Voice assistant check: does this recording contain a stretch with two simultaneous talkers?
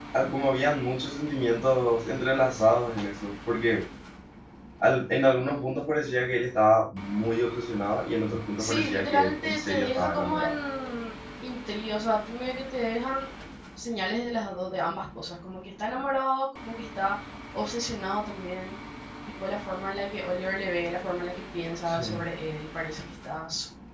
Yes, from 8.6 s

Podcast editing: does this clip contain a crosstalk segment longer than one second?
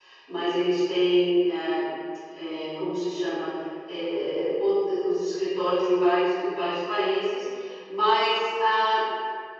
No

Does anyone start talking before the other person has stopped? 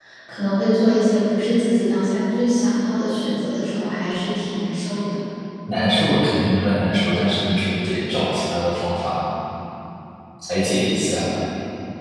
No

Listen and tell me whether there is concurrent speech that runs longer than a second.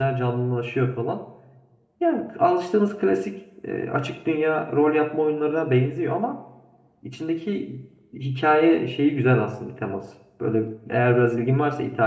No

